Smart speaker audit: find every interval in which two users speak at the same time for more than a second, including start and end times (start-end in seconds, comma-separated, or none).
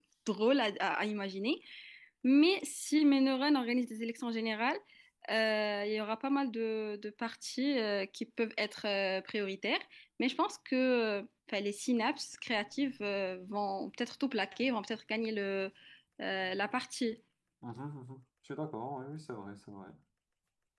none